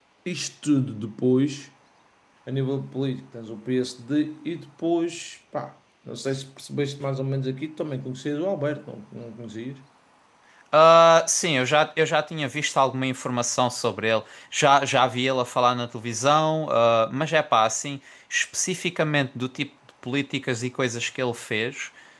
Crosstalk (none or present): none